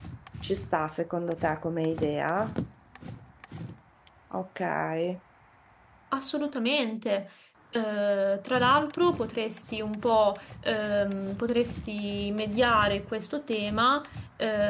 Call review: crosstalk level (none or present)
none